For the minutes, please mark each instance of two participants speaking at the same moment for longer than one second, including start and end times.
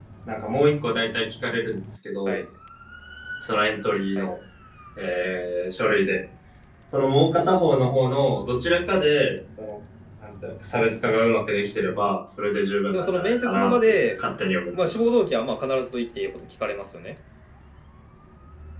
12.9-14.2

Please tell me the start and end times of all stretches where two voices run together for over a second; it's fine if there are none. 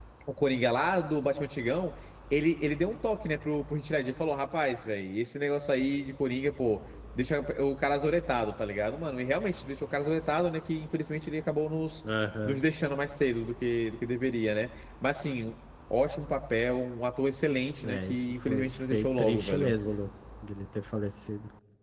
17.9-19.7

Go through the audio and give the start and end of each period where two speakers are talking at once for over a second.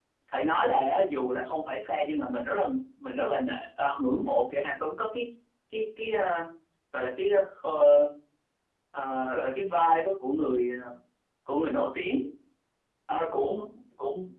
none

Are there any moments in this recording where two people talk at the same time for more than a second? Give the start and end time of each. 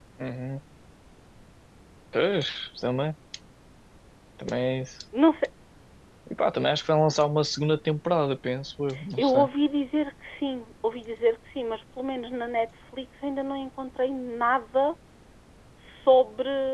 none

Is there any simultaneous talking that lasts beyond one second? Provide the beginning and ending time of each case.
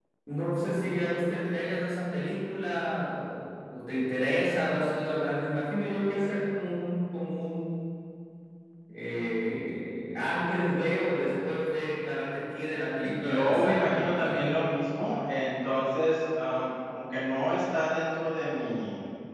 13.0-14.6

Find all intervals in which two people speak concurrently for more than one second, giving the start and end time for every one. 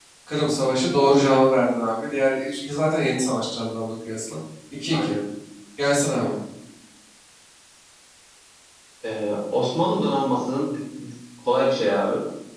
none

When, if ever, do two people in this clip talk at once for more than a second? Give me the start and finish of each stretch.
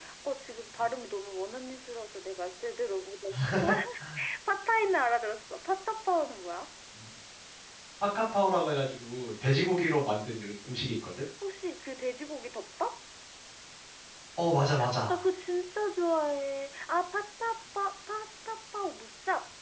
none

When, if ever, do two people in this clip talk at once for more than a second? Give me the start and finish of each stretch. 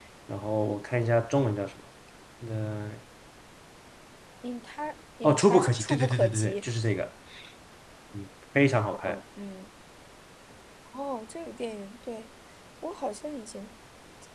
5.2-6.5

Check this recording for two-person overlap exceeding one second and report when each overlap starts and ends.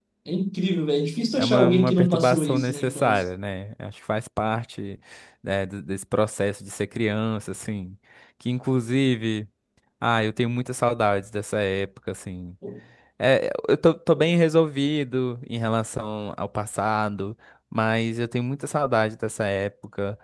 1.4-3.2

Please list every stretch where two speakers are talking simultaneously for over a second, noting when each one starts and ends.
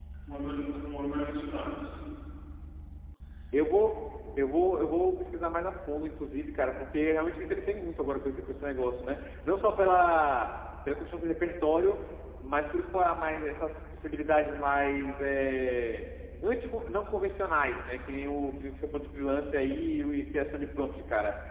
none

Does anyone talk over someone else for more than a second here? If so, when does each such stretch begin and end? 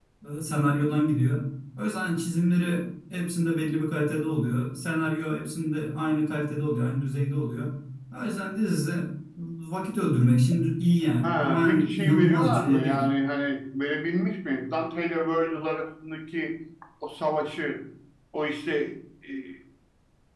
11.2-13.0

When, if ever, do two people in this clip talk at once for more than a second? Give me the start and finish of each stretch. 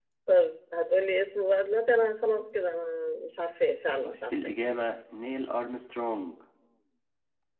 none

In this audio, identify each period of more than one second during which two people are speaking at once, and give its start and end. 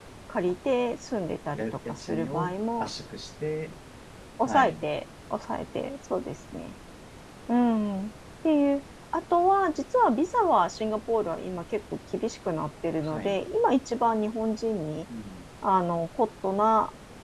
1.6-2.9

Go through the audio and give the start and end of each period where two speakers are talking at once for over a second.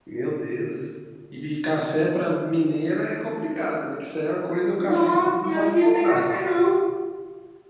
4.8-6.3

